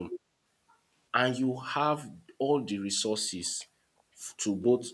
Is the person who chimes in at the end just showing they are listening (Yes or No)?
Yes